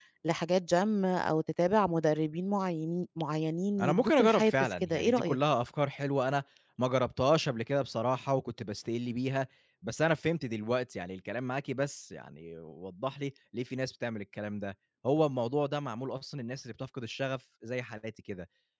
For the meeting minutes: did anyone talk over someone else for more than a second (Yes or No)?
Yes